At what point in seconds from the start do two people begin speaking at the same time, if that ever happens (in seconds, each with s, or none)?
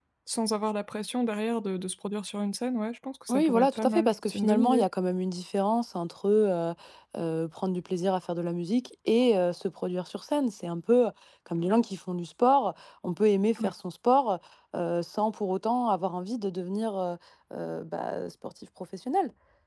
3.3 s